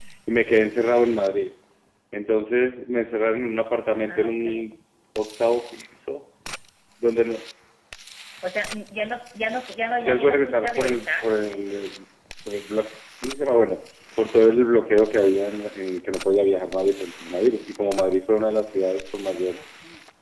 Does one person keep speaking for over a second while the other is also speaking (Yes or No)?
Yes